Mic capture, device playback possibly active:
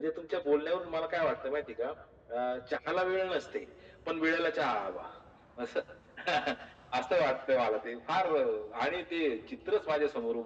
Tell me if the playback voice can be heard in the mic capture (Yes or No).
Yes